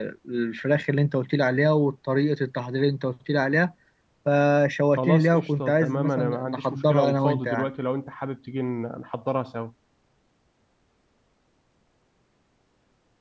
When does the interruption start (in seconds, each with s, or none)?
5.0 s